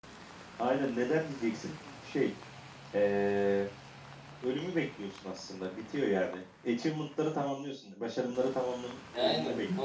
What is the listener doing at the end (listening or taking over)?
taking over